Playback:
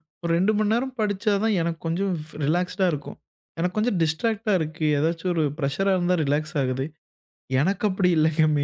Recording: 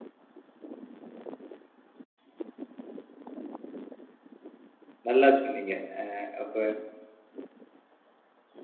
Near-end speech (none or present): present